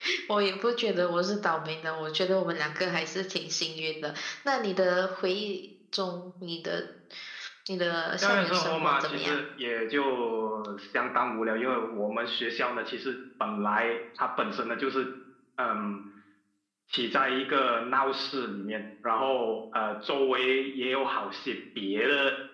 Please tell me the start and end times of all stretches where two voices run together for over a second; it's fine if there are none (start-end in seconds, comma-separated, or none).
8.2-9.4